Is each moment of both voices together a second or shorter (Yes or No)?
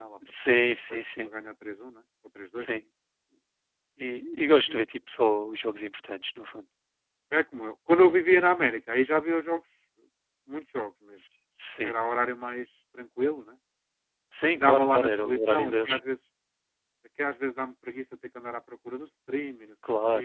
No